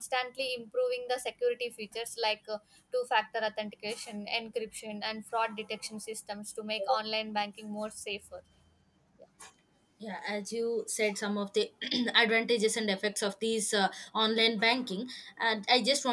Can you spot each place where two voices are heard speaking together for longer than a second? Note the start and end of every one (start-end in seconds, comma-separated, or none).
none